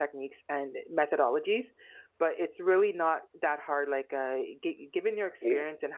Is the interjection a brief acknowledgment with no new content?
Yes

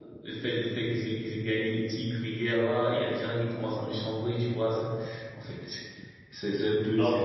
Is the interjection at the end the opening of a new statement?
No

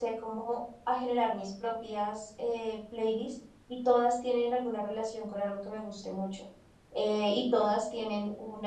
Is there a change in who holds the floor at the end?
No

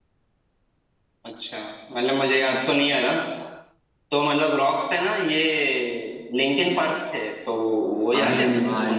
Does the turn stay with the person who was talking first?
No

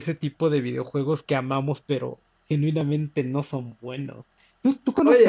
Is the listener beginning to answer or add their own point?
Yes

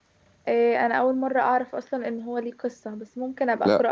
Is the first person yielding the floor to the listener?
Yes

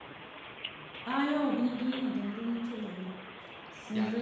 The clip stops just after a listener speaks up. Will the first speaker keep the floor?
No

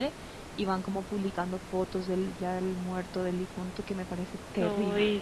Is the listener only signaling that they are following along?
No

